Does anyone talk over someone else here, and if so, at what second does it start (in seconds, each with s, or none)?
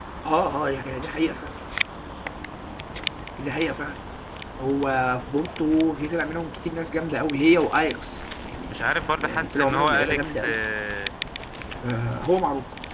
9.2 s